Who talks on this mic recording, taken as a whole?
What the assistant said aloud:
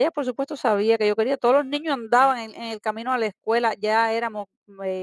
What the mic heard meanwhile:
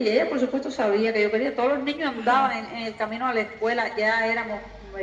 both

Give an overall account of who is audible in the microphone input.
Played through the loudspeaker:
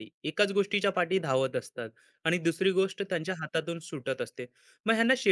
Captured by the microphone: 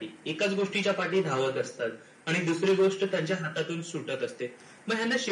echo only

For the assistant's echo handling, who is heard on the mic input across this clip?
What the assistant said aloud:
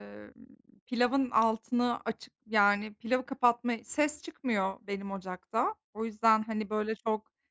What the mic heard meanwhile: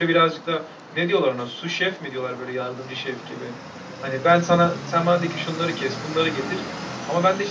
user only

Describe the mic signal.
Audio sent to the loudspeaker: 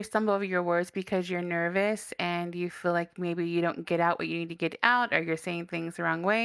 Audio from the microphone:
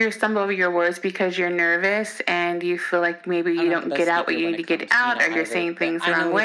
both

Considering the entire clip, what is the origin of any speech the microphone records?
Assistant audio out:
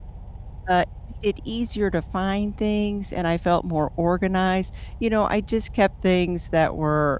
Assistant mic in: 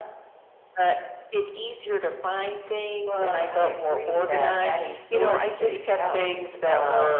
both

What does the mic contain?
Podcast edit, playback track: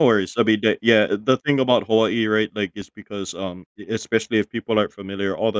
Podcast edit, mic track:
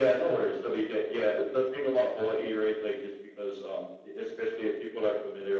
echo only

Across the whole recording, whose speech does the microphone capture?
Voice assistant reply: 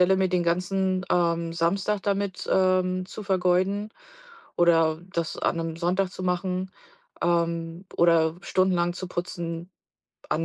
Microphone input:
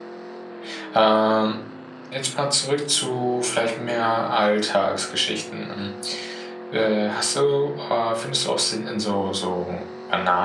user only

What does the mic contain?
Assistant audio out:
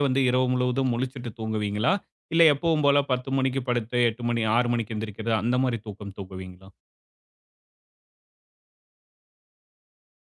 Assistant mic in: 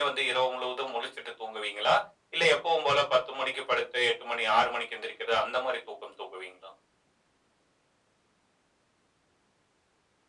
echo only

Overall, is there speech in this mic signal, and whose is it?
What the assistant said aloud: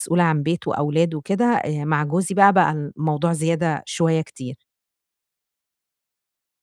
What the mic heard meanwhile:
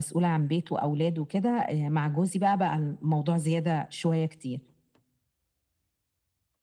echo only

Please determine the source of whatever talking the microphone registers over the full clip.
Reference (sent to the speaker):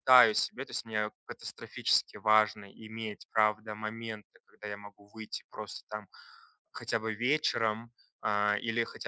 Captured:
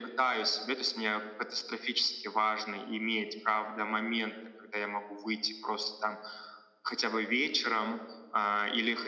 echo only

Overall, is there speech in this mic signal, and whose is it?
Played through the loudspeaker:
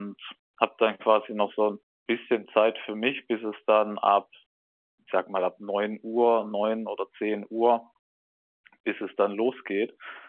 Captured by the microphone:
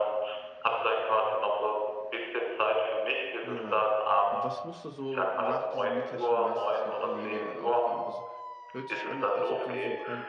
both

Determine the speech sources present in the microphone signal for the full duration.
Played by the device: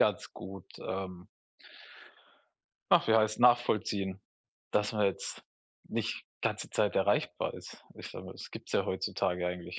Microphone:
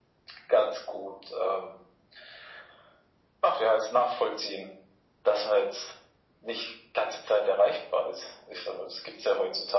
echo only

